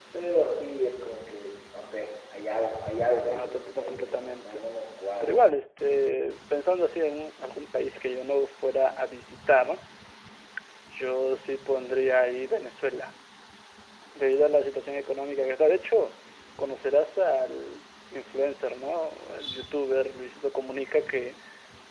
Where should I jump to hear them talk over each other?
3.3 s

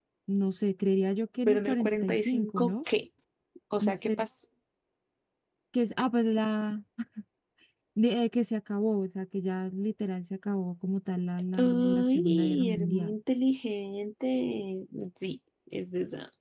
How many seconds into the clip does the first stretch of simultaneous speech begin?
1.5 s

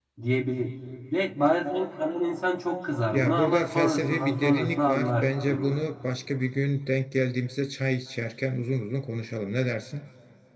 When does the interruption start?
3.1 s

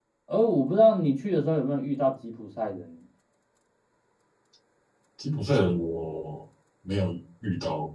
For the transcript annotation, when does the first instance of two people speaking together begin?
none

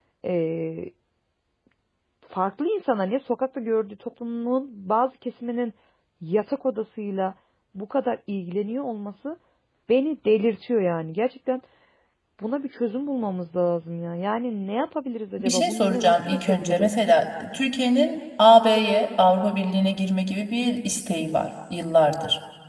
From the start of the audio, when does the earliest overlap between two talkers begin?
15.4 s

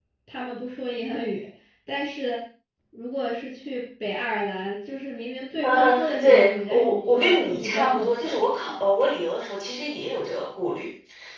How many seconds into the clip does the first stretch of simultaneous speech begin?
5.6 s

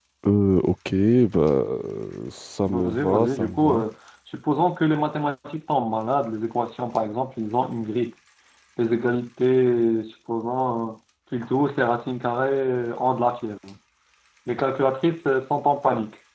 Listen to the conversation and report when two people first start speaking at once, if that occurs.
2.6 s

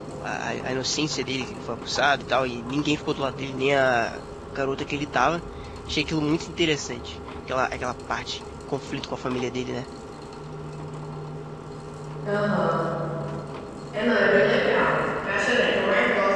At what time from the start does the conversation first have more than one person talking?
none

